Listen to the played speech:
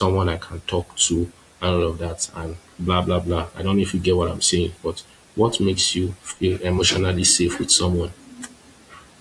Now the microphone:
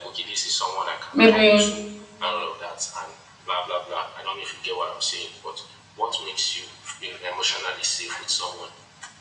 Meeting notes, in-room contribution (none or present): present